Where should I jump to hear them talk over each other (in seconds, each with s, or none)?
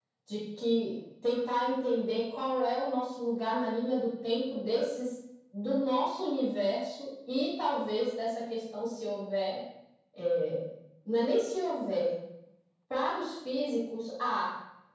none